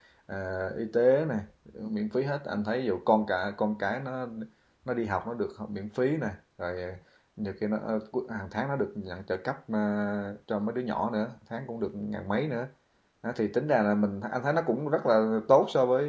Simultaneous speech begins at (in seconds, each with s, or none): none